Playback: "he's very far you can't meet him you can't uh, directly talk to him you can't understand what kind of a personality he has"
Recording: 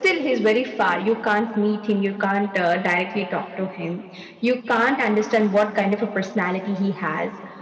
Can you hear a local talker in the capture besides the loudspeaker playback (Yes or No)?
No